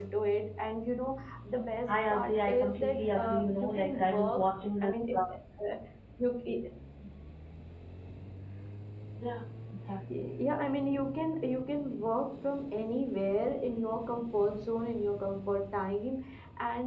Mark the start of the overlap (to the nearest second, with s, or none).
2 s